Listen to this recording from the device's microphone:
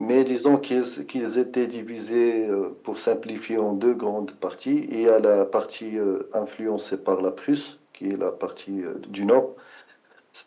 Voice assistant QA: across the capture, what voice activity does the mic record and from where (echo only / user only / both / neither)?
echo only